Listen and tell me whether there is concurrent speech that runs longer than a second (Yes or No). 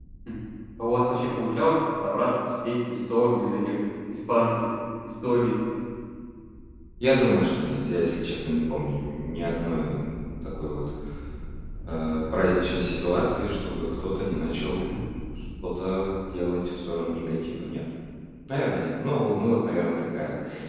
No